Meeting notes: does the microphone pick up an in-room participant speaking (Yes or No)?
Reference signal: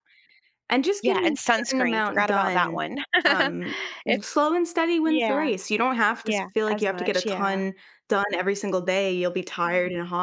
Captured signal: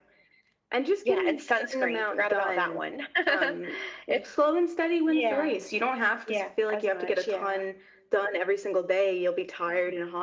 No